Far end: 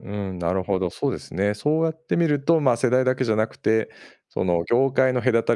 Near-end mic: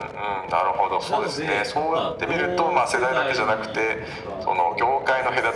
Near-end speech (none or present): present